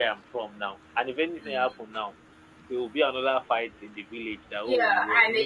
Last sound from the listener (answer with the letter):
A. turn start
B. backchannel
A